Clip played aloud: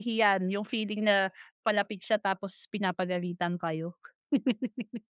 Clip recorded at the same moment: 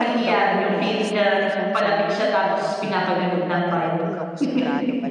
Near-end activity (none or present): present